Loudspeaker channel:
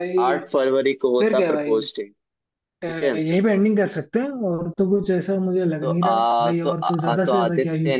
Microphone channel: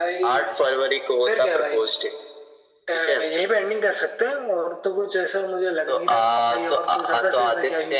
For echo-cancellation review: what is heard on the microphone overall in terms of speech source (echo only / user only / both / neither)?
echo only